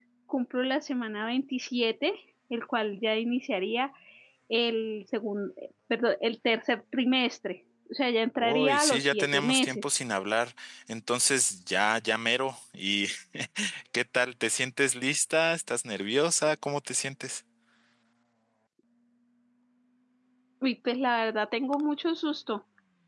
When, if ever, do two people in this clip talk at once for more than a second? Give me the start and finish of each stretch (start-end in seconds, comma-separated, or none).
8.4-9.8